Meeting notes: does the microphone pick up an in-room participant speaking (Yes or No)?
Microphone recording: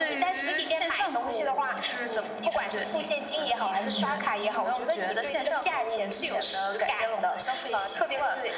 Yes